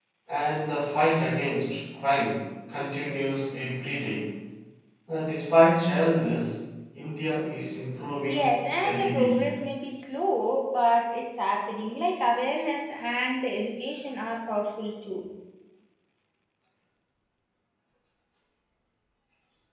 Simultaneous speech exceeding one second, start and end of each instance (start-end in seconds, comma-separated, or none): 8.3-9.5